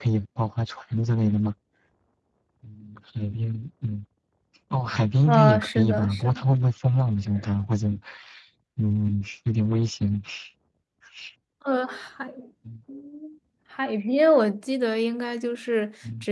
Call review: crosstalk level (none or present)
present